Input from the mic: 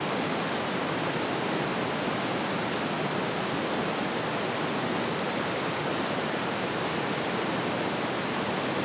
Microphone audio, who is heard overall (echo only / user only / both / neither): neither